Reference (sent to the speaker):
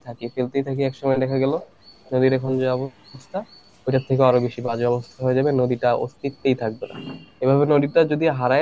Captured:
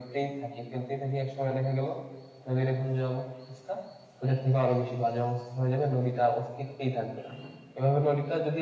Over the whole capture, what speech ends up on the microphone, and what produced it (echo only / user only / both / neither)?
echo only